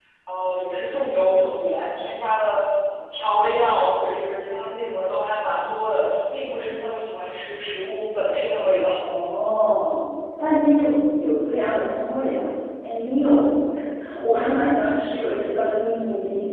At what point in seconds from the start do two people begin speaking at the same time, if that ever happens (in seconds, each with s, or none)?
none